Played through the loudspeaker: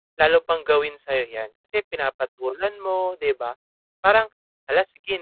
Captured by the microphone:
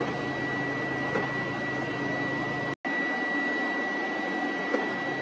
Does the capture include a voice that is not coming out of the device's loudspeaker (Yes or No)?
No